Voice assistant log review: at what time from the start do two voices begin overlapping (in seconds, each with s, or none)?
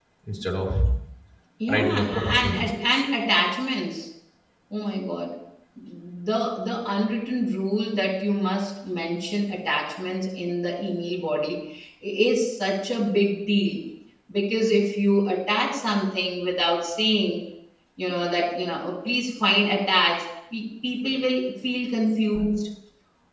1.7 s